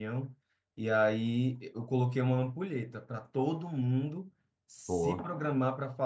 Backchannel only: Yes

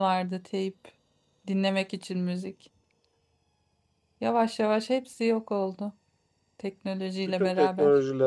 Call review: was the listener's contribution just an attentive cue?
No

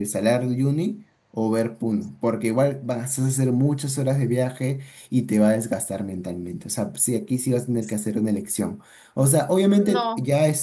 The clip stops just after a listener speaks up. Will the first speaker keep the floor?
Yes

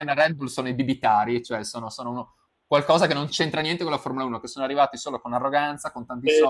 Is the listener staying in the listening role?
Yes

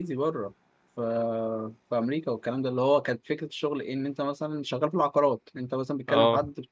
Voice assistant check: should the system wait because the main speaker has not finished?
Yes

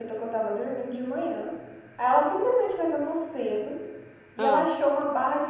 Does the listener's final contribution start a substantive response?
No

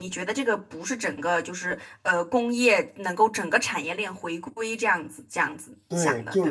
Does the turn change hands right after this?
Yes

